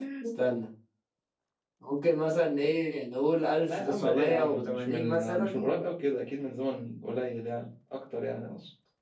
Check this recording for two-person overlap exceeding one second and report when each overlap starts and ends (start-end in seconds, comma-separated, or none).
3.6-5.6